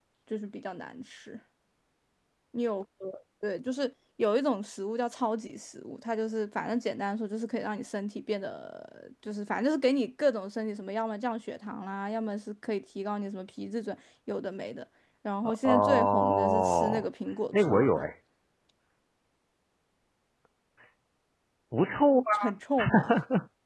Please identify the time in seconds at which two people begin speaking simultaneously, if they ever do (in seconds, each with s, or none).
15.4 s